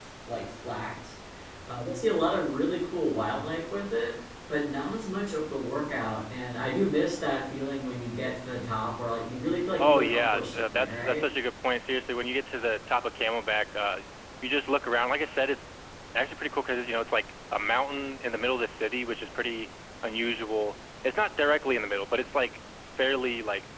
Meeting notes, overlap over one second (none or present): present